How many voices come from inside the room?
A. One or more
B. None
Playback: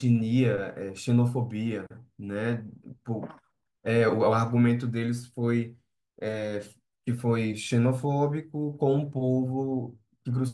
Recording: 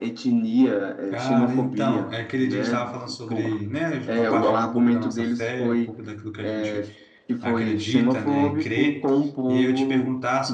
A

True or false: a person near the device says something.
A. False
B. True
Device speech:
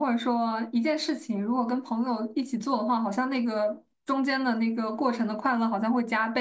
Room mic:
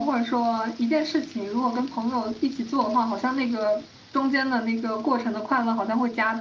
A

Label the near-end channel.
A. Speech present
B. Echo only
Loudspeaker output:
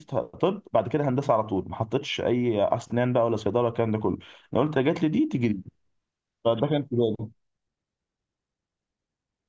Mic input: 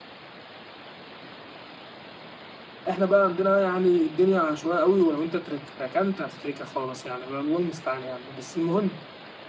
A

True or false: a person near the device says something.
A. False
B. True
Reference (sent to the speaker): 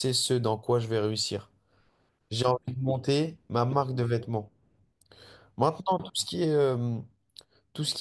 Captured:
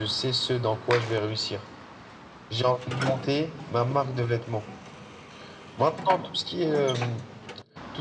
A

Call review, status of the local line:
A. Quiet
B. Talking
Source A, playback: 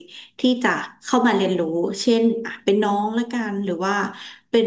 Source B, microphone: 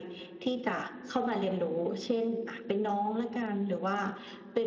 A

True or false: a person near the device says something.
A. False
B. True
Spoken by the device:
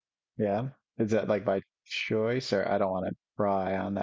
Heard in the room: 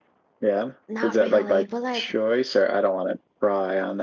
B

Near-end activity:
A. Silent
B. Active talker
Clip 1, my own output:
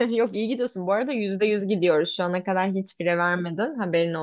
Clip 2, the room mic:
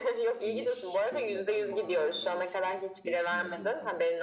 B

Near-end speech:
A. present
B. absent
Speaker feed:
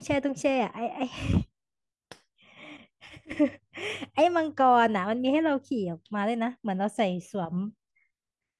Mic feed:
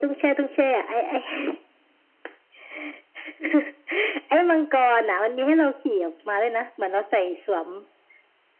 B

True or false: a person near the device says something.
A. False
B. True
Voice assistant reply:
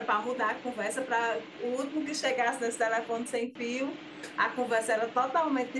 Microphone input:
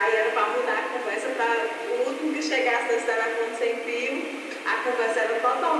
A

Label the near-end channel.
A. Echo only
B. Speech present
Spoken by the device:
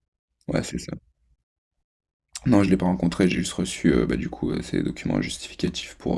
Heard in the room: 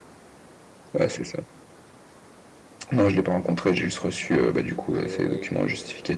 B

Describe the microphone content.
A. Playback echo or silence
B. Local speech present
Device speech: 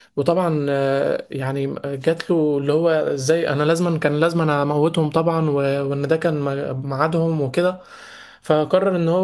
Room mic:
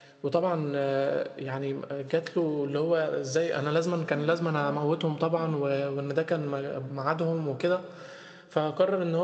B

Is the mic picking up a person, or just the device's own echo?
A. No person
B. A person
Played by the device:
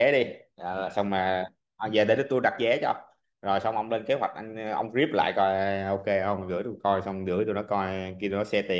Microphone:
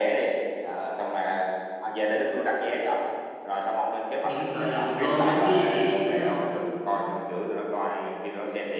B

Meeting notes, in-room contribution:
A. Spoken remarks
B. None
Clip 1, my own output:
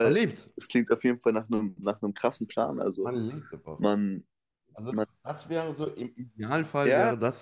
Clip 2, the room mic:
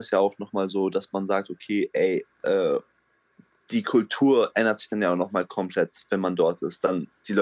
A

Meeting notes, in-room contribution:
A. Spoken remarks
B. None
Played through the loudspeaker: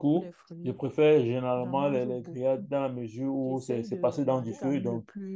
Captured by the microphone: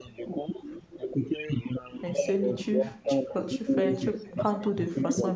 A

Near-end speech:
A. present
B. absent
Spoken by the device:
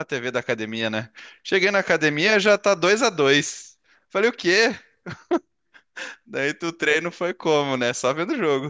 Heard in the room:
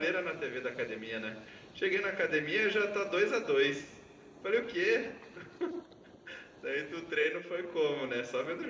B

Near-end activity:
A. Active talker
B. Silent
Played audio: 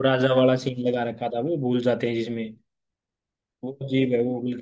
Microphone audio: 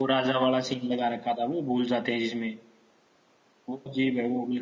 B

